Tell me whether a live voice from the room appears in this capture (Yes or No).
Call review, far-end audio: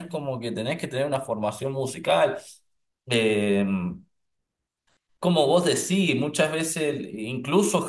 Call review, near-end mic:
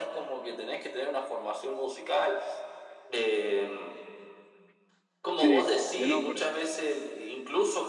Yes